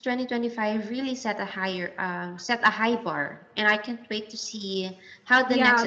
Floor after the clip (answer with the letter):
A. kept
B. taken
B